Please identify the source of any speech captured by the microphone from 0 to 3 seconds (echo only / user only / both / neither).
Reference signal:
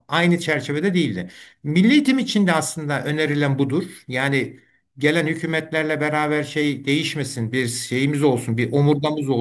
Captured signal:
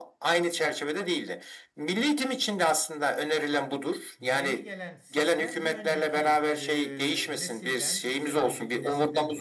echo only